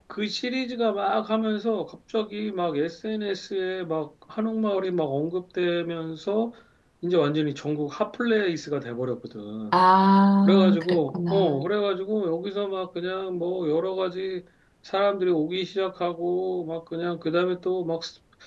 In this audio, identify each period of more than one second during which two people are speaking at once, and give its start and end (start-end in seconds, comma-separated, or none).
10.4-11.7